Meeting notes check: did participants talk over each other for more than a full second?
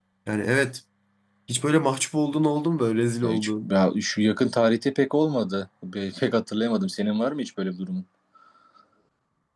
No

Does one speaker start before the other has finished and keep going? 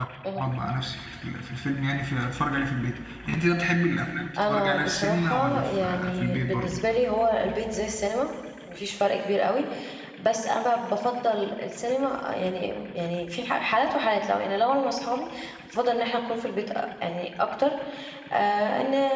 Yes, from 4.4 s

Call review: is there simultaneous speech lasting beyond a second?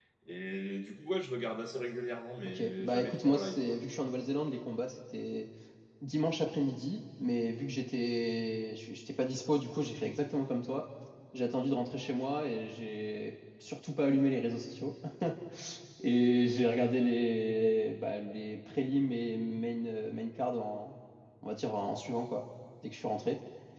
Yes, from 2.4 s

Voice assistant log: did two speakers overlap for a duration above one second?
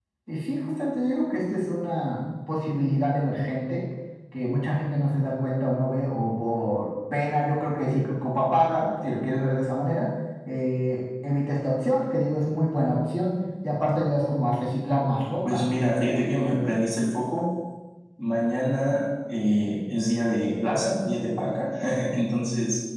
No

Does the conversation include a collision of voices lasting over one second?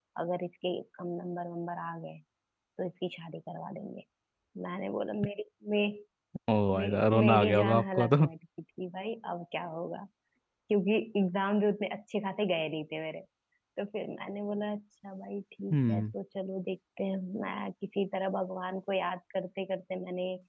Yes, from 6.8 s

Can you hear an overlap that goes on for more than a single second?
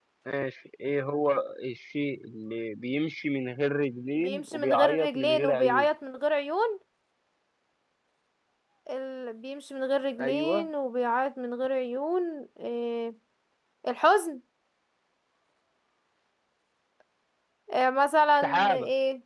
Yes, from 4.2 s

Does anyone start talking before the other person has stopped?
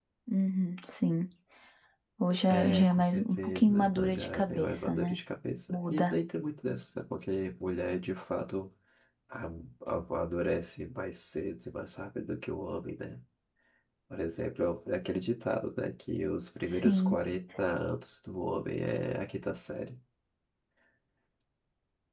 Yes, from 2.4 s

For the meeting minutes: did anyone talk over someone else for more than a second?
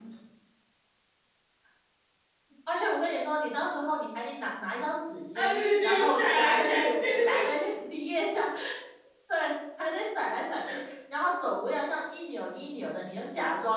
Yes, from 5.4 s

